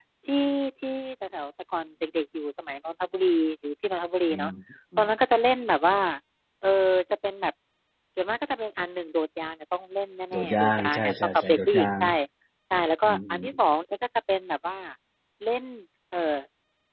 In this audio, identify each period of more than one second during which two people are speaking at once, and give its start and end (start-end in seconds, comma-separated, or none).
10.3-11.9